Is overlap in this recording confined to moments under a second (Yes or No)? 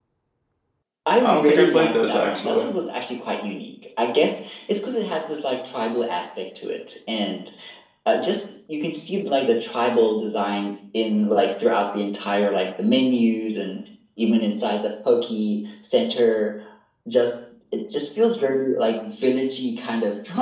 No